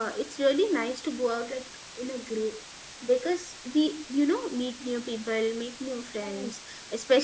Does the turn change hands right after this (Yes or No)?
No